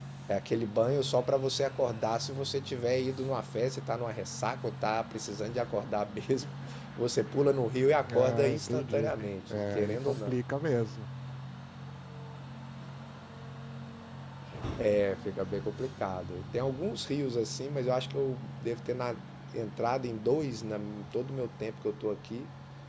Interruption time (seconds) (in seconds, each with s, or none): 8.1 s